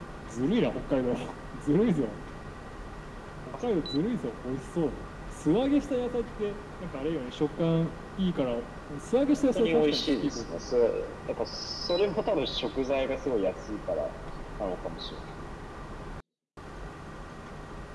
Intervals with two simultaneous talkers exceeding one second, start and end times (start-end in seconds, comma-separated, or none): 9.3-10.7